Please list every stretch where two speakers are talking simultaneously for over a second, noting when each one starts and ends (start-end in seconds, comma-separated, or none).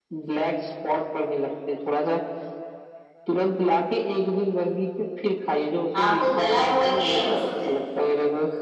6.0-7.7